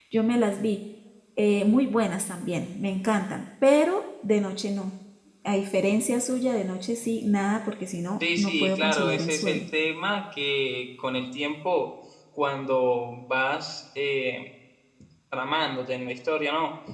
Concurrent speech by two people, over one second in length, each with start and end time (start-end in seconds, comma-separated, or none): 8.2-9.6